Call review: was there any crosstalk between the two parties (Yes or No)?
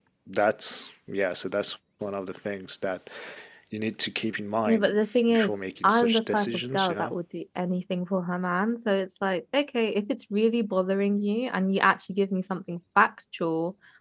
Yes